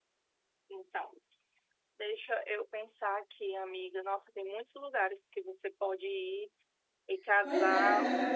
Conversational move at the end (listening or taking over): taking over